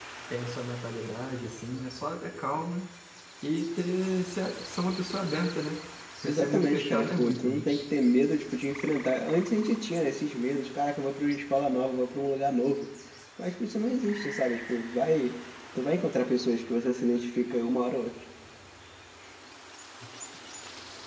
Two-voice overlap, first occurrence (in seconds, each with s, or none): 6.2 s